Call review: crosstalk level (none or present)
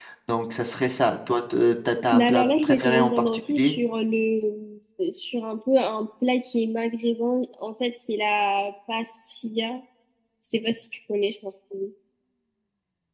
present